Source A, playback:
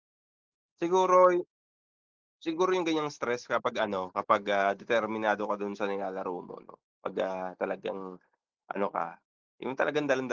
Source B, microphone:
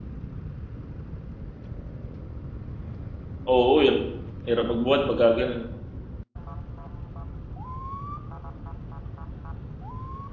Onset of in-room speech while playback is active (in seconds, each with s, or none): 3.5 s